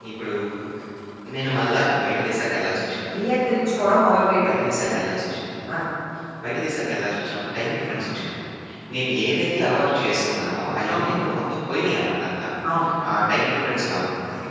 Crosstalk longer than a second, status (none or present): none